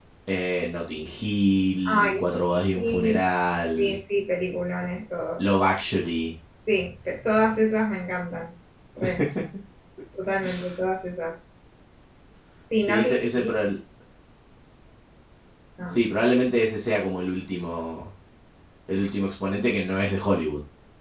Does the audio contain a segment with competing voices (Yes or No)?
Yes